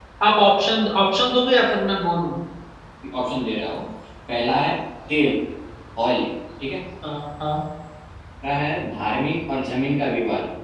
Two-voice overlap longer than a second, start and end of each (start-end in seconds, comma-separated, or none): none